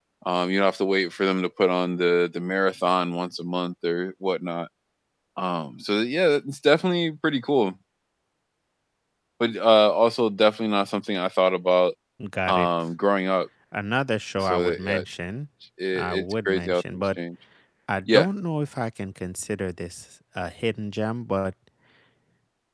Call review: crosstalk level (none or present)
present